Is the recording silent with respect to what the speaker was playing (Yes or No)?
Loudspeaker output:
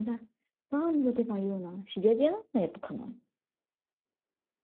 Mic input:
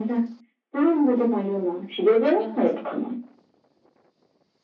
No